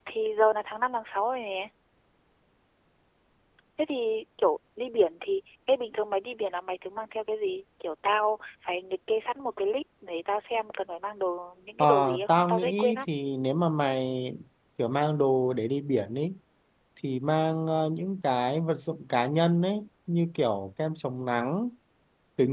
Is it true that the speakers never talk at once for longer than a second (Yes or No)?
No